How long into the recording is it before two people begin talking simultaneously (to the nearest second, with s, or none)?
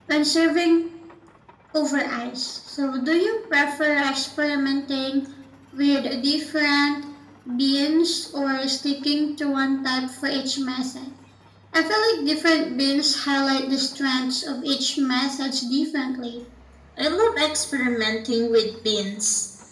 none